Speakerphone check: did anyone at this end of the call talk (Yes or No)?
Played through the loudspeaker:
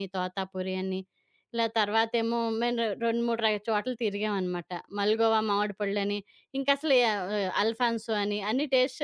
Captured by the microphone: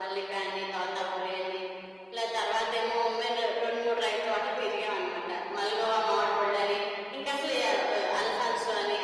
No